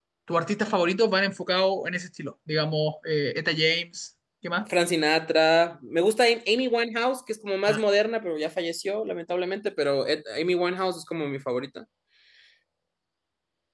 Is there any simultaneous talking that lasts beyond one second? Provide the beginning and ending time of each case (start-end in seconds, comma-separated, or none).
none